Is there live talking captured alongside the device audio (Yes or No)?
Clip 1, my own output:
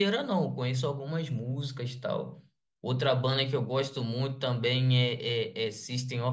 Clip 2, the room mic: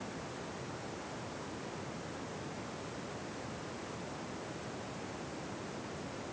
No